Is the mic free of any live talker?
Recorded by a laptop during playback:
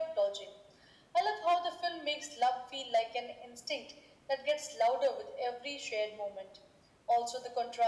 Yes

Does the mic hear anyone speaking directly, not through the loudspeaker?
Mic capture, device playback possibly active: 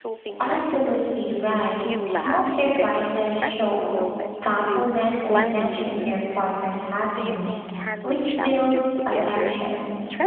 Yes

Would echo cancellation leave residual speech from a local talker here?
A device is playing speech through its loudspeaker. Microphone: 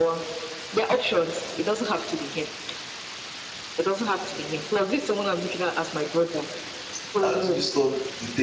Yes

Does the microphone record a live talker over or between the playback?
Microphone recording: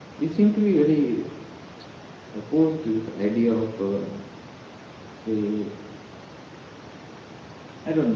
No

